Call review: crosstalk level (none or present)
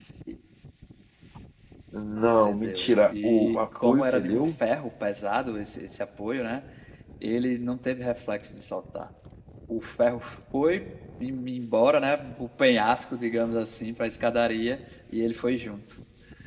present